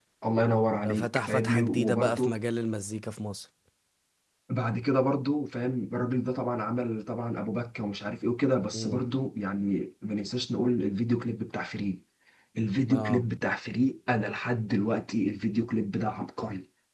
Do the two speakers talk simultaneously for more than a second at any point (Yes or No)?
Yes